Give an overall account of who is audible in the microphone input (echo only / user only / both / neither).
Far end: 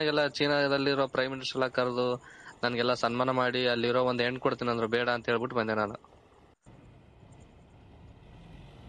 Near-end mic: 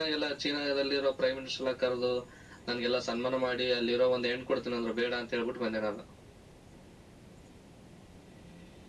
echo only